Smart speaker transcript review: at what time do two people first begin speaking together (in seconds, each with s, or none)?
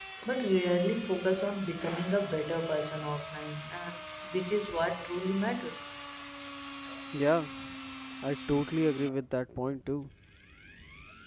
none